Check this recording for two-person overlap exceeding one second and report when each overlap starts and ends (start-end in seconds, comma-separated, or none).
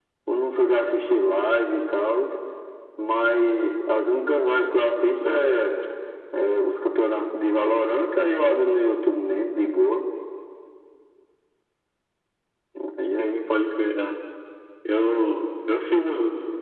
none